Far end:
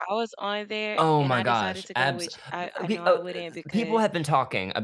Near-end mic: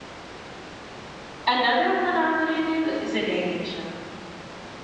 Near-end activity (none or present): present